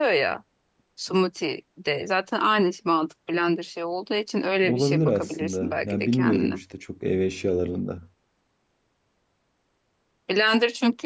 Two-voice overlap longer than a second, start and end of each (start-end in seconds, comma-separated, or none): 4.6-6.6